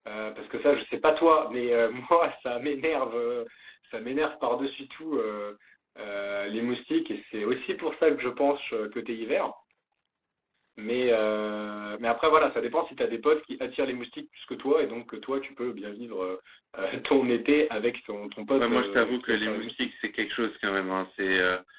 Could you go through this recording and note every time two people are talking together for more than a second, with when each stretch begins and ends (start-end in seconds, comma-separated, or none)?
18.6-19.9